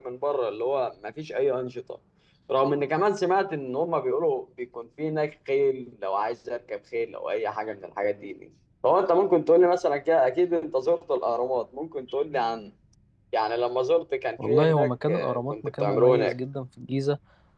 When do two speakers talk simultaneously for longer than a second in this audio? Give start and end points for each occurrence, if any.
14.5-16.4

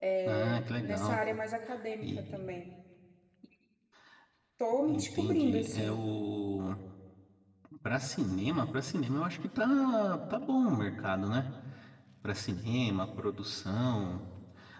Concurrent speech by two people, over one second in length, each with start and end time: 4.8-6.0

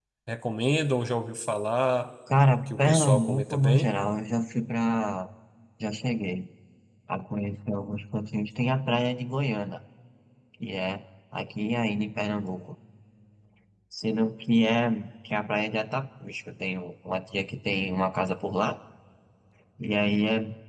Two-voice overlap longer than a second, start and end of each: 2.7-3.9

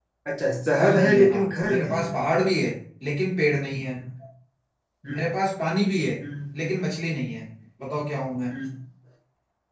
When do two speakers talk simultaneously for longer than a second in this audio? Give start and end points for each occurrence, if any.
0.8-2.1

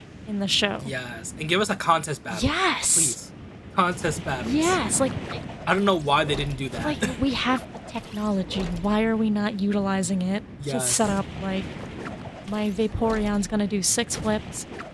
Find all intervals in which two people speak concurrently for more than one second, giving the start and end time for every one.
none

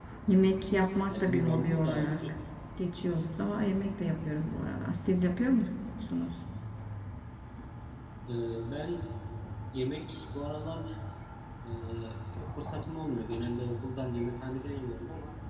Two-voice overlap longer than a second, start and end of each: 1.0-2.2

